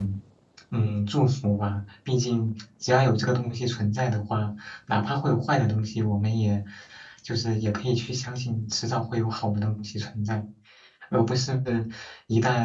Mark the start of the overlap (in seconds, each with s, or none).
none